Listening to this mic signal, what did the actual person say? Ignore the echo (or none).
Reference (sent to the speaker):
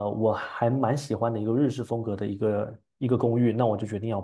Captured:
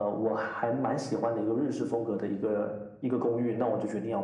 none